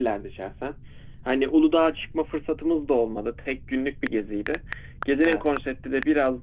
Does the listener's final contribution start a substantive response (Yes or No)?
No